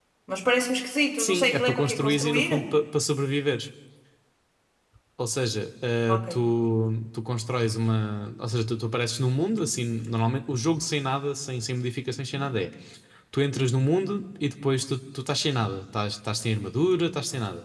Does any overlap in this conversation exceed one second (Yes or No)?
Yes